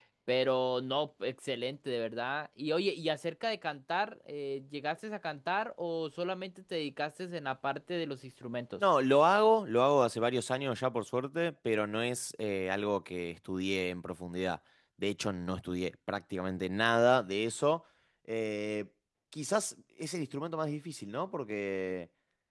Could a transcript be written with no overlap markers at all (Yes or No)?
Yes